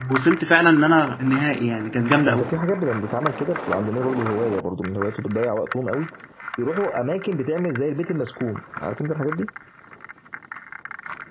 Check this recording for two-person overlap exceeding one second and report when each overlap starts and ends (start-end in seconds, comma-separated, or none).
none